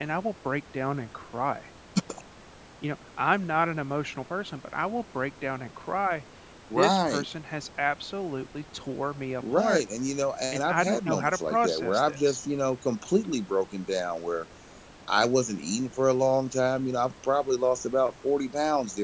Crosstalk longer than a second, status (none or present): present